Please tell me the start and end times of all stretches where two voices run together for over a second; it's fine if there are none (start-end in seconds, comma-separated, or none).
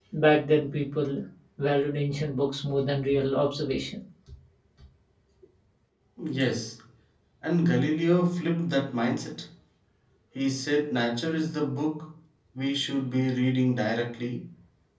none